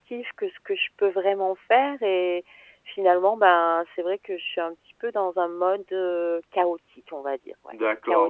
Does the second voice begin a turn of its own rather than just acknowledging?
Yes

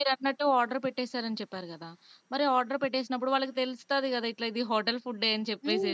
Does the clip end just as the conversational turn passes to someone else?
Yes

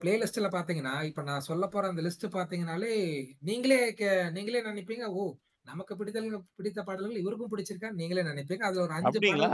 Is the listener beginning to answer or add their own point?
Yes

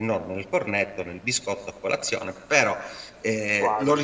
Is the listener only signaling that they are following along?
Yes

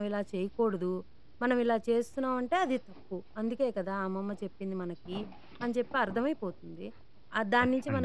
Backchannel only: Yes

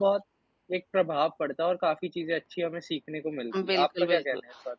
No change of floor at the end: No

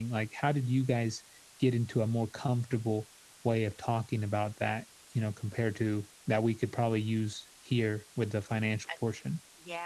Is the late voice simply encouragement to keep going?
No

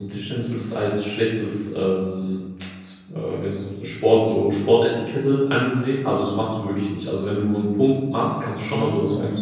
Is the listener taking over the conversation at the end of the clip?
No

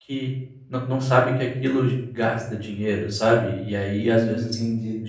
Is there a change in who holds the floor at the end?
Yes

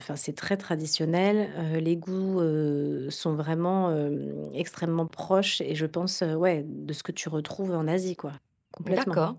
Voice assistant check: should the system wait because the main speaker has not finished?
No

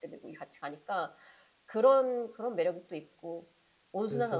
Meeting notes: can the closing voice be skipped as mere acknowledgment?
Yes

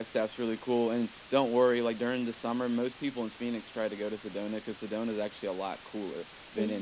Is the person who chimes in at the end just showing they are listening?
Yes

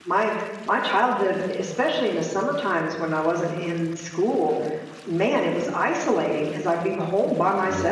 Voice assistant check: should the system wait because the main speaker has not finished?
Yes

